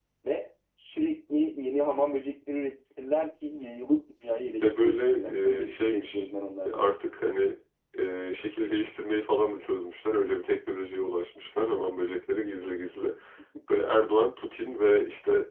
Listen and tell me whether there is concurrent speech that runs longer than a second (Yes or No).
Yes